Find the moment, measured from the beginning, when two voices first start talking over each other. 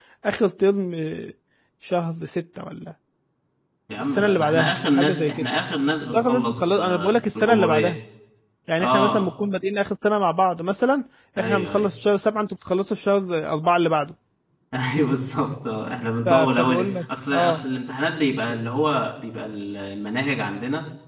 4 s

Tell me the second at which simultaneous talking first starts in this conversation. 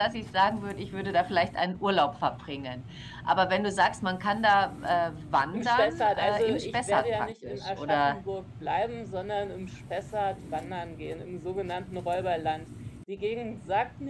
6 s

